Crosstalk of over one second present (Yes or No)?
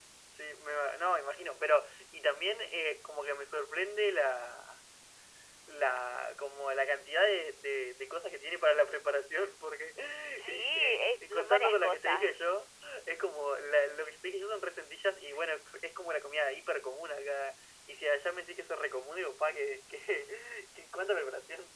Yes